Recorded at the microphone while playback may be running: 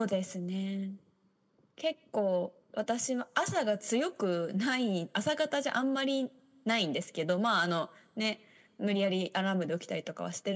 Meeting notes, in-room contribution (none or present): none